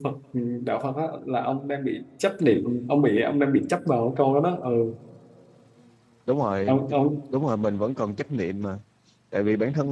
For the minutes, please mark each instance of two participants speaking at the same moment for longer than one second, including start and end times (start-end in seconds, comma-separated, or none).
none